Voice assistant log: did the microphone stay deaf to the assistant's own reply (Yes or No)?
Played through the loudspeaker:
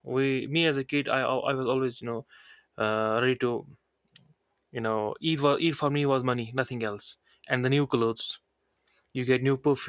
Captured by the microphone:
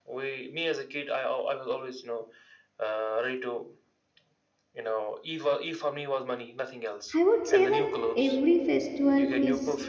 No